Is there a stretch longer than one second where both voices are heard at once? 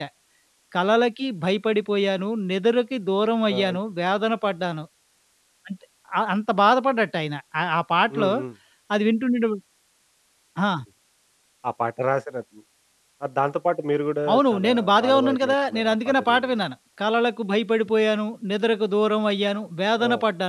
Yes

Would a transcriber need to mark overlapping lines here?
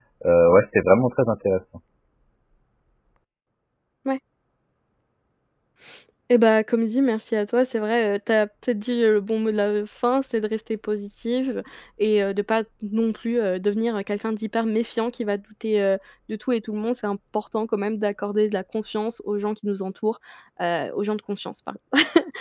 No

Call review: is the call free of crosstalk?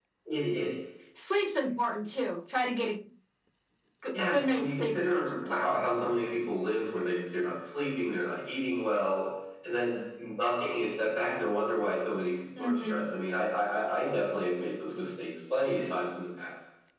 No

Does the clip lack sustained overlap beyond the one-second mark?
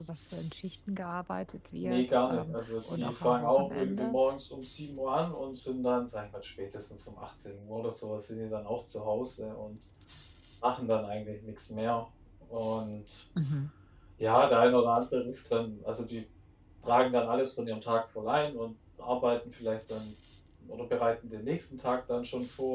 No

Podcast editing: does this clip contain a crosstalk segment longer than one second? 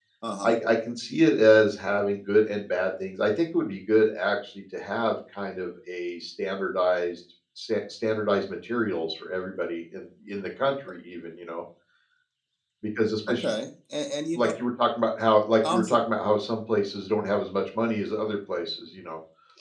No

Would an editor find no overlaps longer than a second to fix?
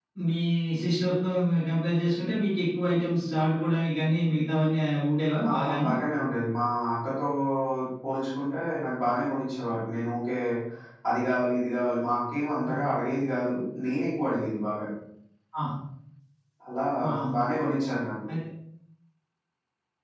Yes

